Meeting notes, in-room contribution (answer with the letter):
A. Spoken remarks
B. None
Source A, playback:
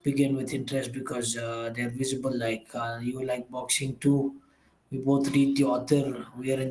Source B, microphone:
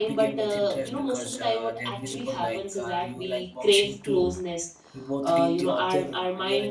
A